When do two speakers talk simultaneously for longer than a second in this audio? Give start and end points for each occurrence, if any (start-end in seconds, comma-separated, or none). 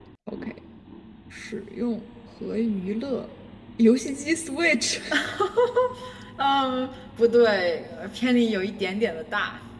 none